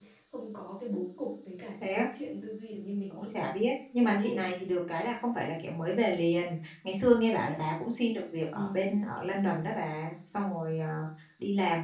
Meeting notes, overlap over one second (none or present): none